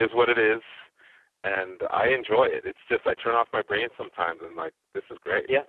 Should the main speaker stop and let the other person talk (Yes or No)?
Yes